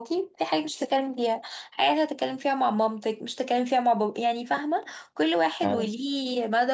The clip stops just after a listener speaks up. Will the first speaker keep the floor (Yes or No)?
Yes